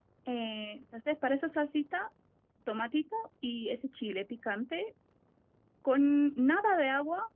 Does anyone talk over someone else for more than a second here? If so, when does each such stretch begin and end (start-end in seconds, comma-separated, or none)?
none